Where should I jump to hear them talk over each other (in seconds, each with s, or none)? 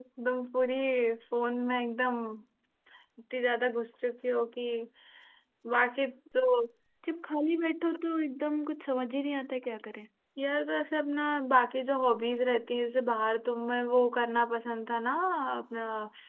none